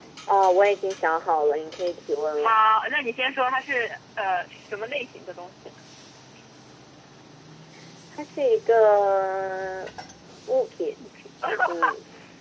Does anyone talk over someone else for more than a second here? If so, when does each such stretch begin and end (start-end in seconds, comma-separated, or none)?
none